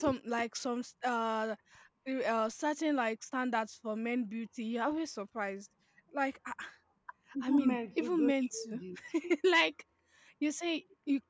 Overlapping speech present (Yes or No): Yes